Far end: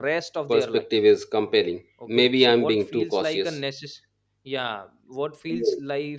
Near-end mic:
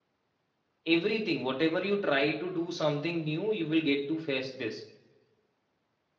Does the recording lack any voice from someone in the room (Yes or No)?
No